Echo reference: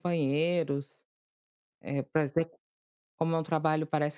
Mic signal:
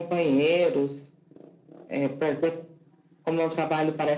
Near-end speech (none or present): none